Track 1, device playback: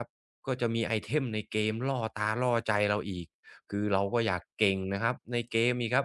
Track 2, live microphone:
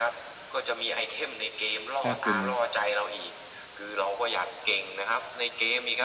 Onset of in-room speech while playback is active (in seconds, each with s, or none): 2.0 s